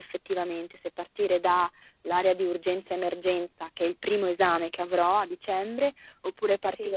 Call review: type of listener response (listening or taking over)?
listening